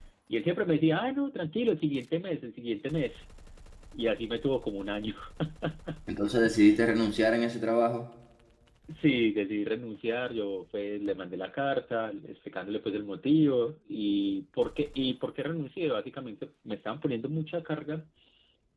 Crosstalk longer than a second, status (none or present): none